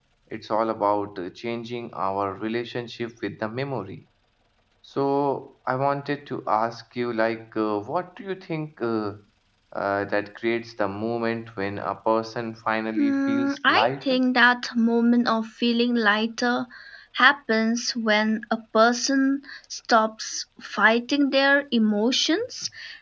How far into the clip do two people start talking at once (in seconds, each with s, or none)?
13.0 s